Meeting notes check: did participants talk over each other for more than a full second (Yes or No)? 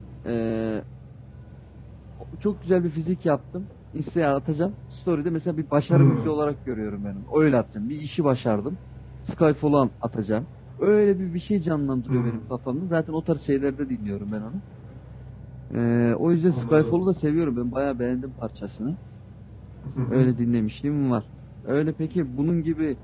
No